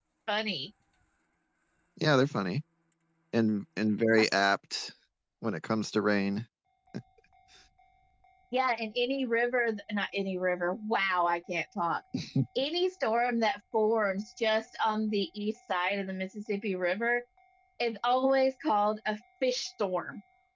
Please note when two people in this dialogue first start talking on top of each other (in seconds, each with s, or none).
none